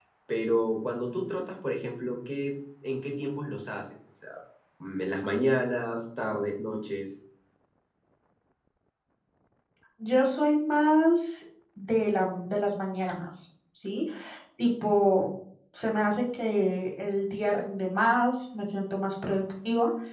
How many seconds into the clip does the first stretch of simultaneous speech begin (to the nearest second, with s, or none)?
none